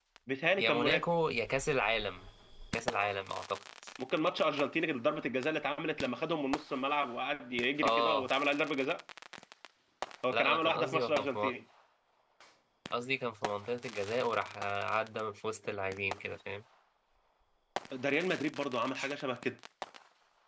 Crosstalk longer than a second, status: present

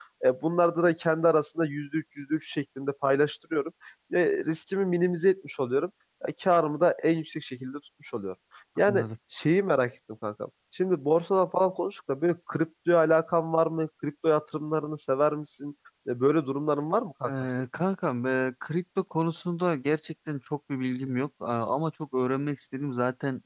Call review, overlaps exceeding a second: none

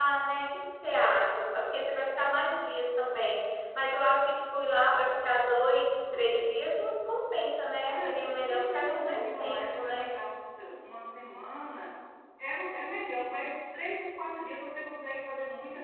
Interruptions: present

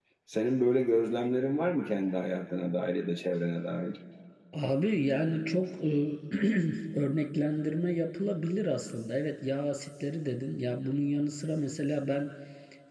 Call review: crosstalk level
none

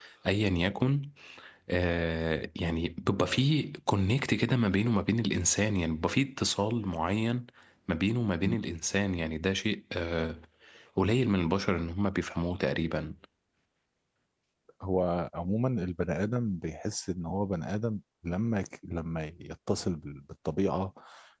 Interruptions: none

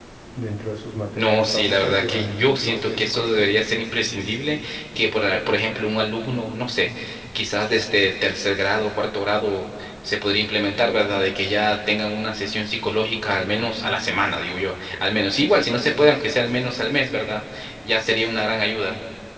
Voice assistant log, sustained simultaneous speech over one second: present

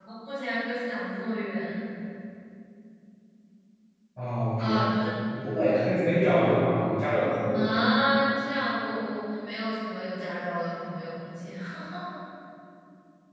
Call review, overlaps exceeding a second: none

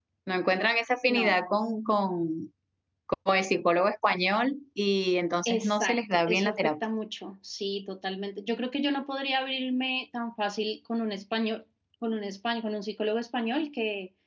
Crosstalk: present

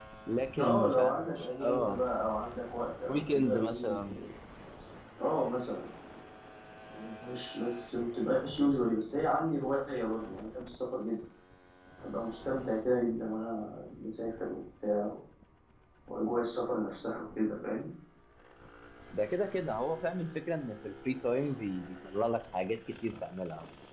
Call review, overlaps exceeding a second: present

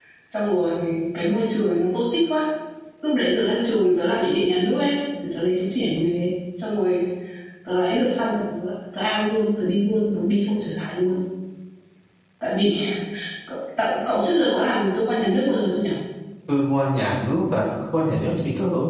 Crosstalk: none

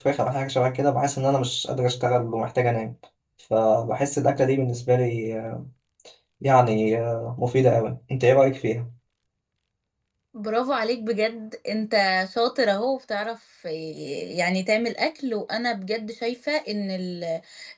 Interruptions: none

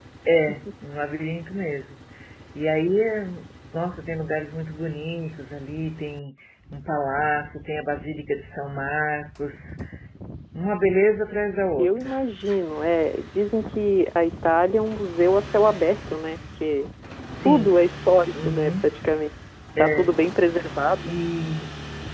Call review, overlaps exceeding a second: none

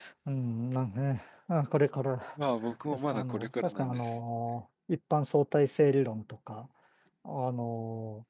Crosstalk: present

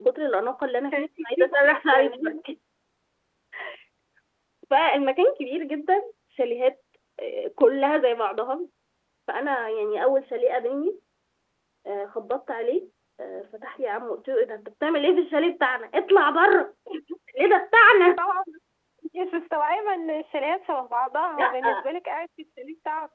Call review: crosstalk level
present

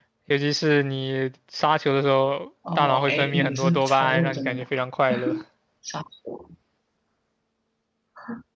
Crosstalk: present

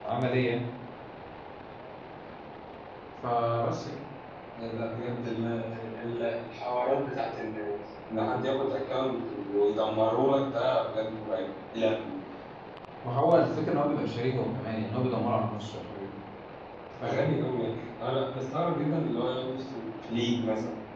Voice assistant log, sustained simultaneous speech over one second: none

